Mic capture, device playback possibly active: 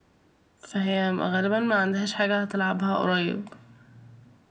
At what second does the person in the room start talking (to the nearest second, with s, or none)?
none